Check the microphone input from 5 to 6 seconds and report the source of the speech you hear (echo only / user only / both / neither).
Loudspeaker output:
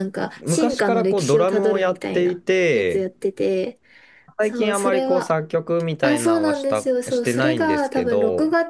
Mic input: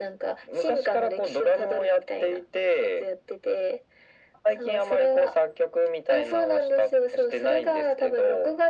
echo only